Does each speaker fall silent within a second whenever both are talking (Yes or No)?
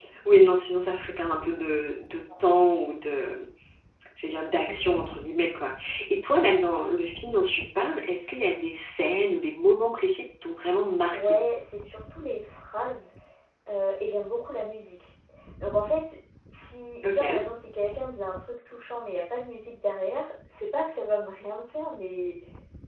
Yes